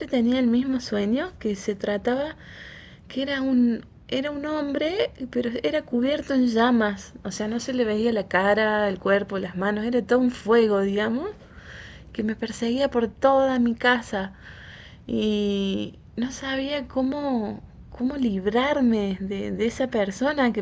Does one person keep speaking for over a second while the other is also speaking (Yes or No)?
No